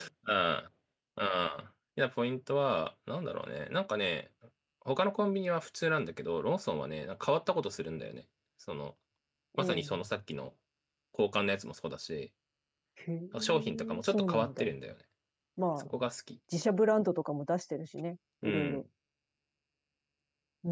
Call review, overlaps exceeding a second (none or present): present